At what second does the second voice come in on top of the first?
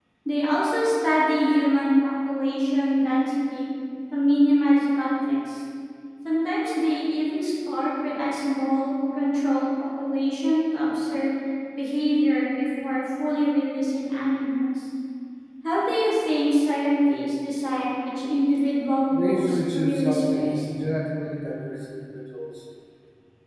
19 s

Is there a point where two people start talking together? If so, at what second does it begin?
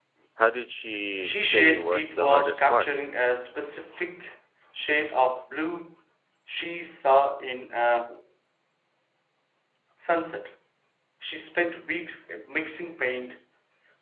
1 s

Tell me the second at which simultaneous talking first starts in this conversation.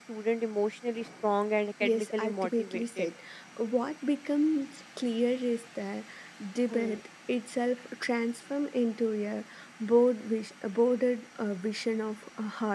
2 s

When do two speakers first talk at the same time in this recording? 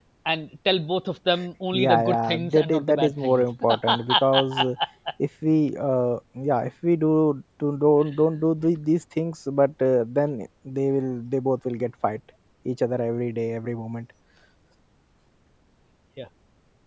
2 s

